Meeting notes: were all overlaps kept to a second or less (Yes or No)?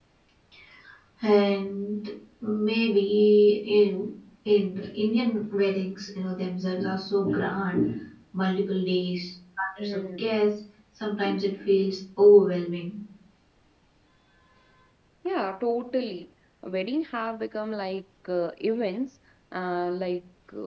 Yes